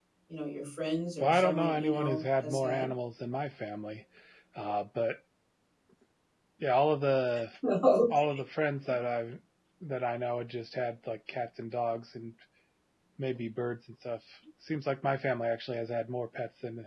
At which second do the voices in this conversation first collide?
1.2 s

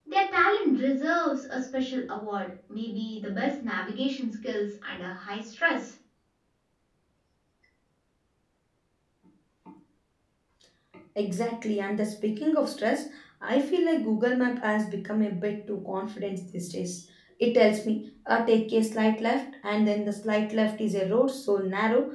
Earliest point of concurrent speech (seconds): none

